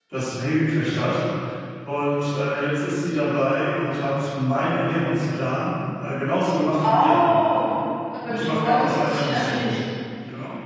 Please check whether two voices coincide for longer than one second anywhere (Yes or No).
Yes